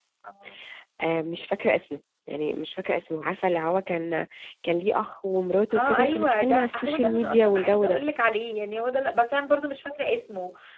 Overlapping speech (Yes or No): Yes